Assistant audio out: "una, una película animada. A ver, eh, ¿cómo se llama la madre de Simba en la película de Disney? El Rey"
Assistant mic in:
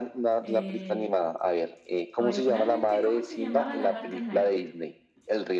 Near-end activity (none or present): present